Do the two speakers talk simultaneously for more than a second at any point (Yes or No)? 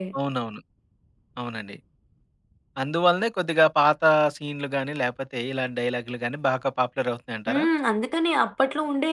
No